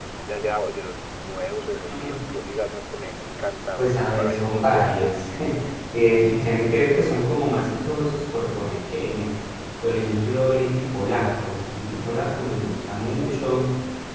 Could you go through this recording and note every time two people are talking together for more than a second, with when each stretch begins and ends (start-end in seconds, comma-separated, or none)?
3.8-5.1